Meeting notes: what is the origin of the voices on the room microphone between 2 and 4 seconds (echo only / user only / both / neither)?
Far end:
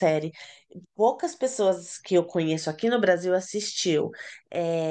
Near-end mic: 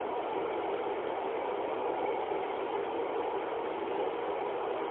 neither